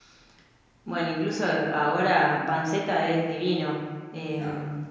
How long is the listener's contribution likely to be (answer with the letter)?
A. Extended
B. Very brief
B